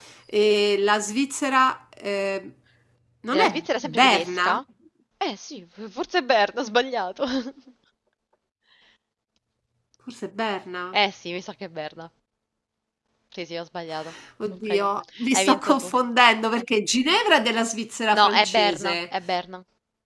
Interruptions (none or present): present